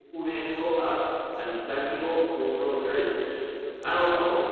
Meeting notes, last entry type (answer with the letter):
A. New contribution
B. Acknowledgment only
B